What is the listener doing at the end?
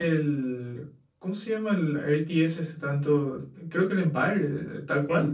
taking over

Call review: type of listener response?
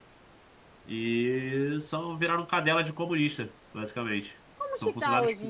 taking over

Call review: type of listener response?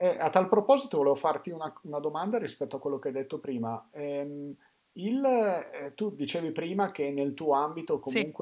listening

